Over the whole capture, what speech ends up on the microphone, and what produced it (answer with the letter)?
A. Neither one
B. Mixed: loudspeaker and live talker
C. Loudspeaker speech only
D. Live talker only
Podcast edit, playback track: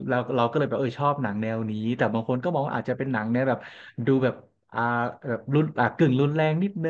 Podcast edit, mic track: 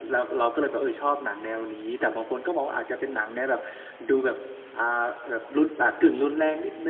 C